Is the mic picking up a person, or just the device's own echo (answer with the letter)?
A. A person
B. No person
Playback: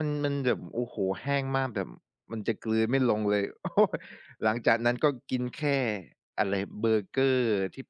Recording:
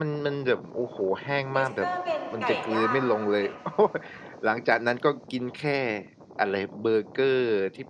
A